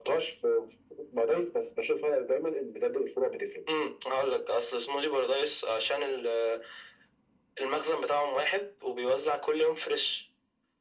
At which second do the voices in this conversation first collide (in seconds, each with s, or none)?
none